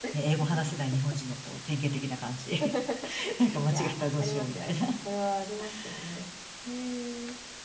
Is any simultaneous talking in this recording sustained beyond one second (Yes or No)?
Yes